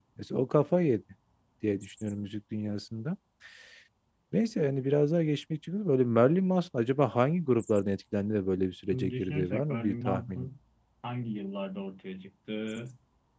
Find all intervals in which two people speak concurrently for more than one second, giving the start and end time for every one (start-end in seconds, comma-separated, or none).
8.9-10.5